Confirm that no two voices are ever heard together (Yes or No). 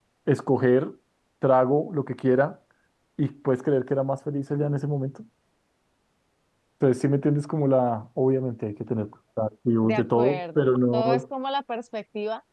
No